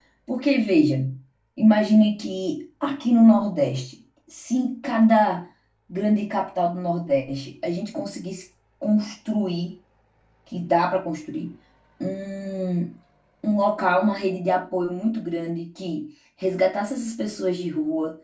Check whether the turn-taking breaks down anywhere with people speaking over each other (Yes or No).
No